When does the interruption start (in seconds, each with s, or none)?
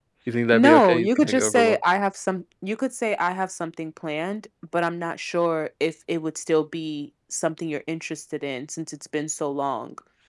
0.5 s